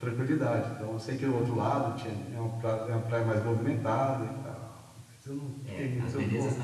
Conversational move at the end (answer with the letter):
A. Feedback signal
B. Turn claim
B